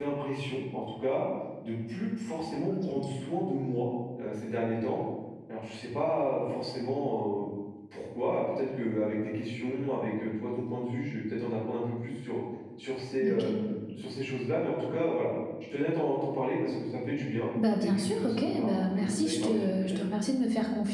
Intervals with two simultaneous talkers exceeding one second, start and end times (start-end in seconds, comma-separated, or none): 17.8-20.0